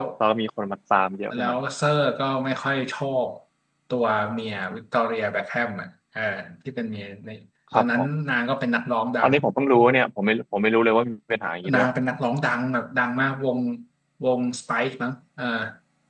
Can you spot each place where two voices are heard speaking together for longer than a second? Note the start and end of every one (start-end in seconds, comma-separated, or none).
none